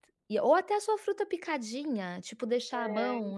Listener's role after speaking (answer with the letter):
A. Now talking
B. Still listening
B